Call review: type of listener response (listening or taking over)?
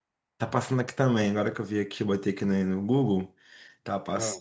listening